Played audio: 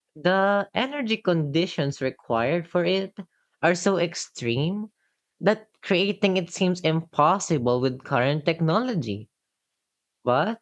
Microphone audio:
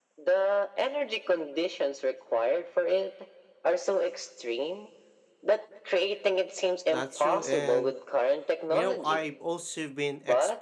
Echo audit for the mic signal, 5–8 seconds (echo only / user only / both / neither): both